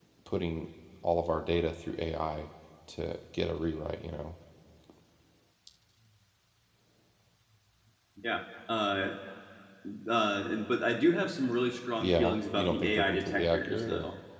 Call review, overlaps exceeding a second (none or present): present